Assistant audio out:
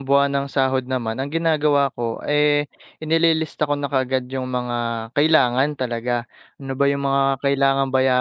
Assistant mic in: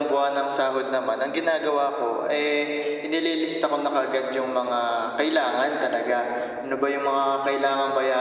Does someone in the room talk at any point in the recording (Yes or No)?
No